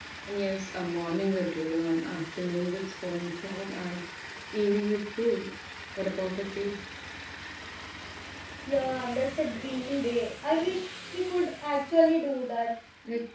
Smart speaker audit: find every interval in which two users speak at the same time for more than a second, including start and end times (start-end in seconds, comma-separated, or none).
none